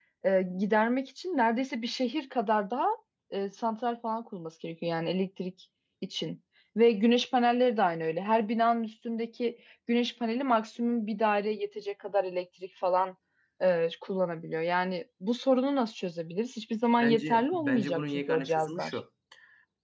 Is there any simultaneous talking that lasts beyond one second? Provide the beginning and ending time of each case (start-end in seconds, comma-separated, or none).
17.0-19.0